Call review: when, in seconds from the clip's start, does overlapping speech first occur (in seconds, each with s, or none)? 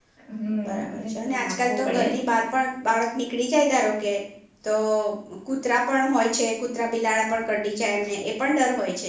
0.6 s